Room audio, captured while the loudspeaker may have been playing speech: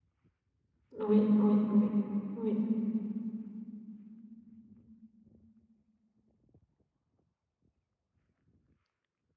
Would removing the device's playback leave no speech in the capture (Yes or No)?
No